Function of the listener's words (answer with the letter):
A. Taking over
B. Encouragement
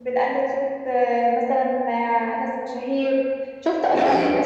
B